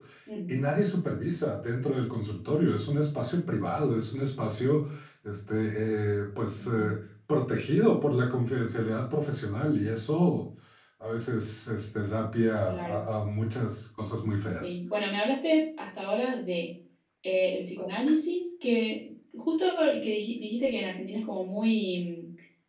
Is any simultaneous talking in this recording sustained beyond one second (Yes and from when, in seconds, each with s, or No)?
No